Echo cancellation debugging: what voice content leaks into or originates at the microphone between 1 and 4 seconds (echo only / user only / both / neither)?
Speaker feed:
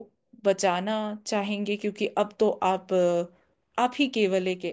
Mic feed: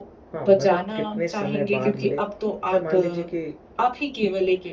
both